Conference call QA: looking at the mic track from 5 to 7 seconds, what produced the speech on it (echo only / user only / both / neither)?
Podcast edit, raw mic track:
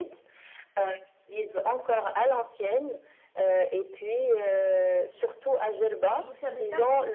both